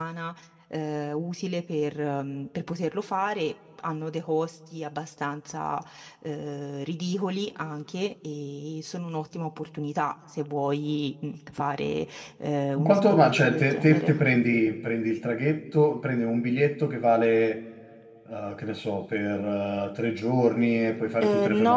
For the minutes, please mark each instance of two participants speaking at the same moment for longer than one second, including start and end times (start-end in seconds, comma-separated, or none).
12.8-14.3